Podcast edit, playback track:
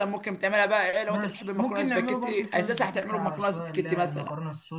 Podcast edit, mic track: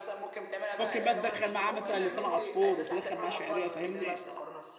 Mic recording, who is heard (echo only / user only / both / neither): both